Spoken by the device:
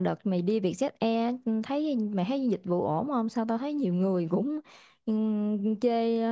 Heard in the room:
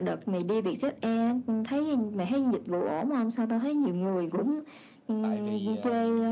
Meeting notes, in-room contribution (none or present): present